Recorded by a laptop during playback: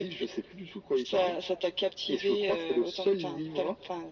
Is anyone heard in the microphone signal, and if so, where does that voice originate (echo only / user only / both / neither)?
echo only